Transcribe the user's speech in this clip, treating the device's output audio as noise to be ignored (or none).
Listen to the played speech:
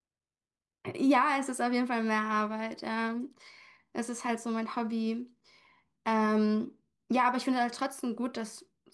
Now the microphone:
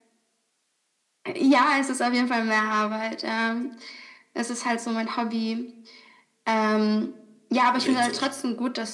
oder irgend sowas.